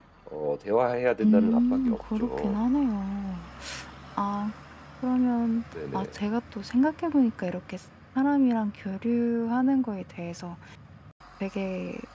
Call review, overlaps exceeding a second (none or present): present